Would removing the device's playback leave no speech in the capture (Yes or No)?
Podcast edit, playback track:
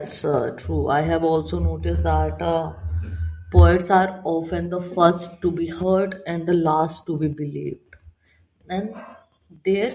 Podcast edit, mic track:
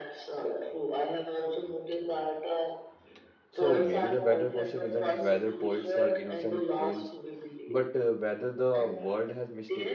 No